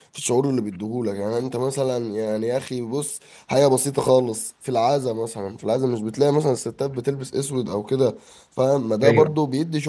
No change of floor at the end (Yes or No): Yes